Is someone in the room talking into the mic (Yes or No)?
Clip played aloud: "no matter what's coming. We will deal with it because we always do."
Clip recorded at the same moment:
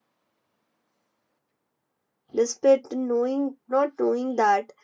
Yes